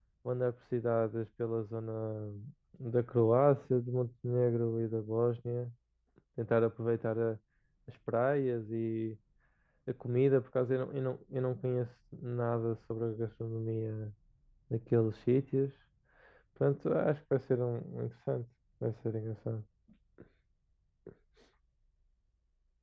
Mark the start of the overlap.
none

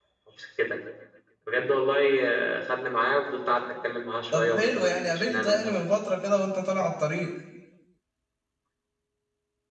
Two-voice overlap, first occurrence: 4.3 s

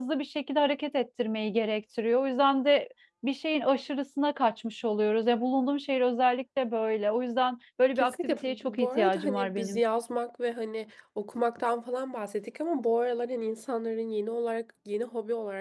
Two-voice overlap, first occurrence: 8.0 s

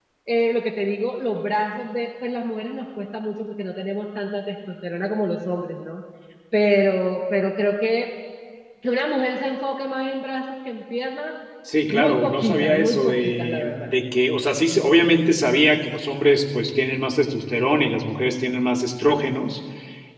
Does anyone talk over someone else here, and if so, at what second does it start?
11.9 s

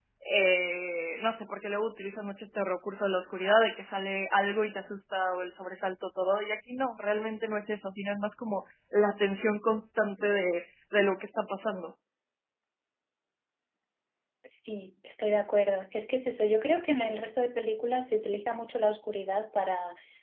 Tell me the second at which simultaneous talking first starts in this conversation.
none

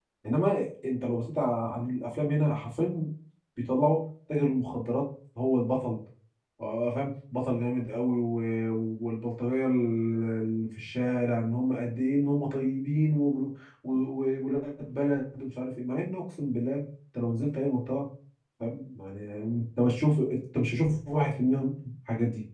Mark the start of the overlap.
none

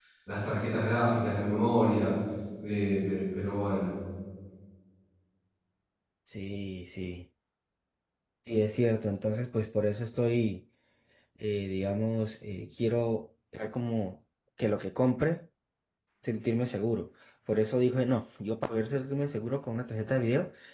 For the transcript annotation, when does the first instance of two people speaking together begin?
none

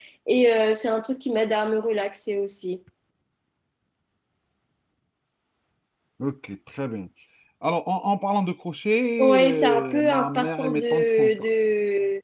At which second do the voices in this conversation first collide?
9.2 s

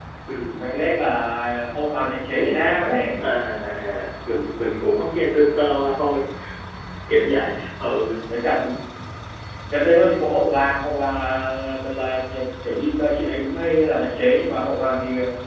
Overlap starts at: none

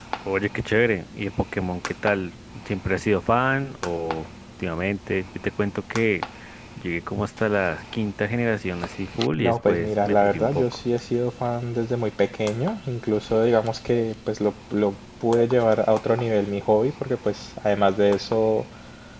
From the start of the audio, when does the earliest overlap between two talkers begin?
9.4 s

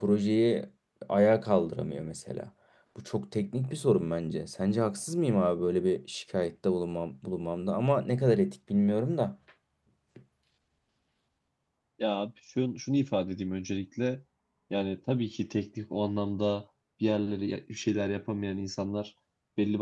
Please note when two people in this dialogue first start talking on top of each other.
none

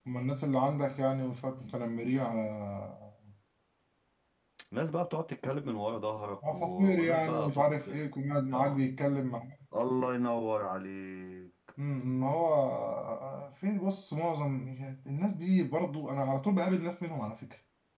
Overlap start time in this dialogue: 6.5 s

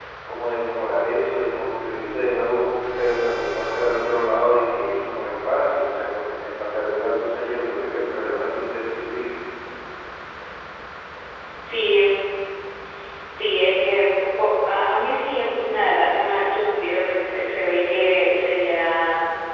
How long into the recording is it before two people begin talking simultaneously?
none

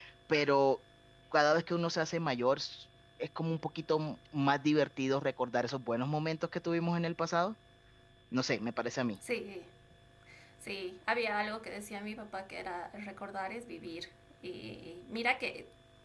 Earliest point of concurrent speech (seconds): none

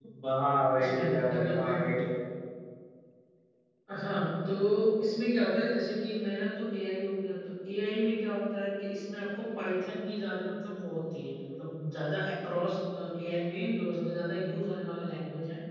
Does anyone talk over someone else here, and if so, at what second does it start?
0.8 s

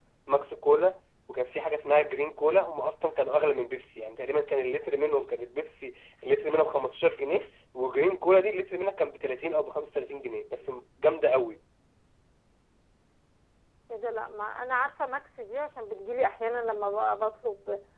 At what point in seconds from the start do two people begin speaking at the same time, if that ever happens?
none

